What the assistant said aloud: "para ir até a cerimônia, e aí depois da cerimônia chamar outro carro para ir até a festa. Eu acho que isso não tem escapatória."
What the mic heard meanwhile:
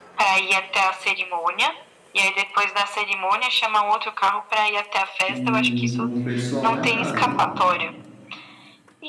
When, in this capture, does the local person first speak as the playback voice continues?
5 s

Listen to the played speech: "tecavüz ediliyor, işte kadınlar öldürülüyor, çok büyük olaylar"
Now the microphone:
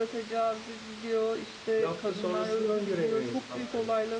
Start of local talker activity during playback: 2 s

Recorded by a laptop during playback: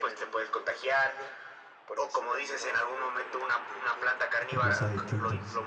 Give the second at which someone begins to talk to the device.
4 s

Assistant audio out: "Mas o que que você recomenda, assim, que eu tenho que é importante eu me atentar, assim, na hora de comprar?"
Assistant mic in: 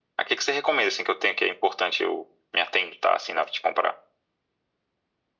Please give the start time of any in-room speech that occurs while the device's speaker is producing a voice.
none

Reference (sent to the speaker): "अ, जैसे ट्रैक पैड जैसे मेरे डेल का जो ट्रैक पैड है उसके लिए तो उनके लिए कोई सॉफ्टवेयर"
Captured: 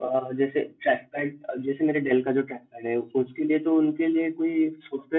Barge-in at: none

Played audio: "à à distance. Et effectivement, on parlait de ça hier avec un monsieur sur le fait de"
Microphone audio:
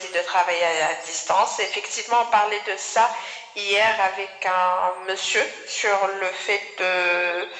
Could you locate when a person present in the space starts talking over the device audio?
none

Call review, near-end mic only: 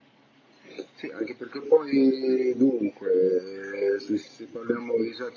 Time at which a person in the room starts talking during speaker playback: none

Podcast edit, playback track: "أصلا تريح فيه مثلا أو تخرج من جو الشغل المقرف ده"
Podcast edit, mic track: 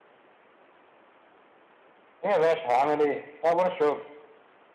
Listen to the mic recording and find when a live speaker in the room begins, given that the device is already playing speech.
2 s

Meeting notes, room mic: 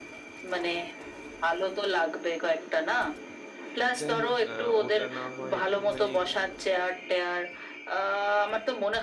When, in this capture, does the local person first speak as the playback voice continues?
4 s

